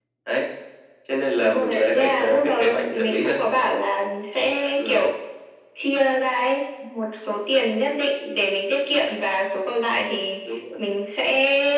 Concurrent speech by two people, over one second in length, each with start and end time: 1.4-3.4

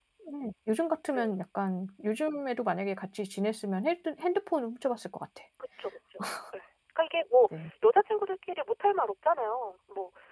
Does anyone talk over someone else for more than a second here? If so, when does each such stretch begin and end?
none

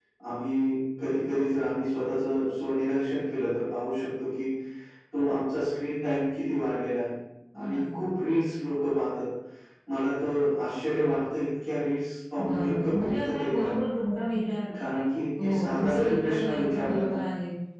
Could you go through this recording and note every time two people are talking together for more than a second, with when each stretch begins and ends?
12.4-13.7, 15.4-17.1

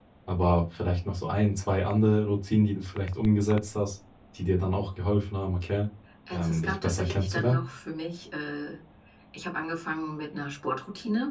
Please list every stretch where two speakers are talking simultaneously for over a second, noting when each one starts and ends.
6.3-7.6

